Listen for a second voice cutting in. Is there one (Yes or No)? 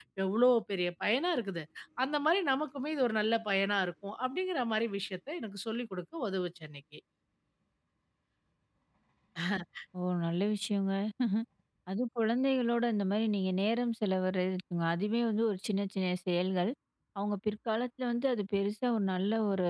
No